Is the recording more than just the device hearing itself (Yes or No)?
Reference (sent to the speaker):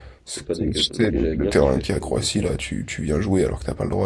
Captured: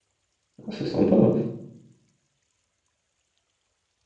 Yes